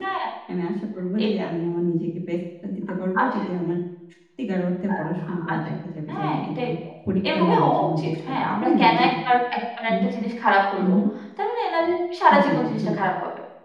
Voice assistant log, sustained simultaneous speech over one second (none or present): present